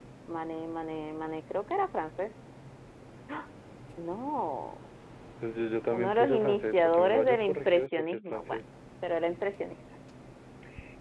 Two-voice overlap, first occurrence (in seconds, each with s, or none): 5.9 s